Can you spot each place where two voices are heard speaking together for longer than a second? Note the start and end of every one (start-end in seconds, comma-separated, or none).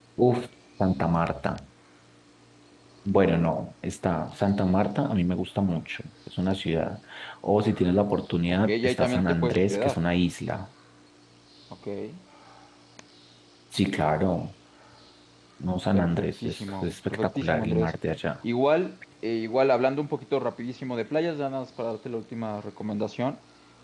8.5-10.0, 15.9-17.9